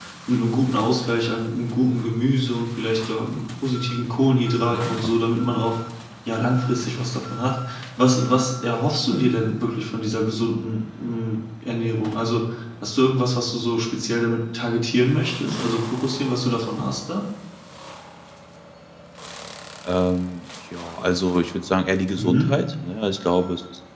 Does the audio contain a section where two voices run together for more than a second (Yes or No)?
No